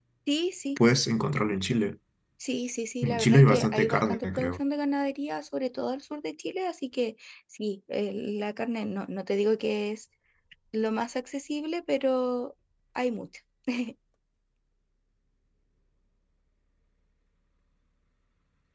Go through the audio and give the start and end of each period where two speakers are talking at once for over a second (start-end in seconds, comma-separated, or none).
3.0-4.6